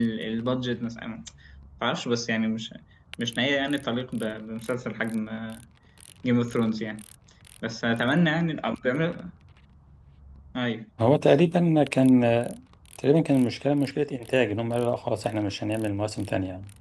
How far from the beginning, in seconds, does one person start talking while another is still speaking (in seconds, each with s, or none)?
none